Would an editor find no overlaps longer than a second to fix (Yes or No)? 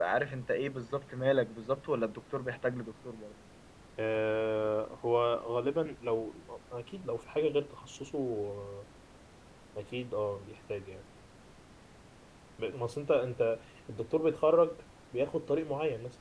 Yes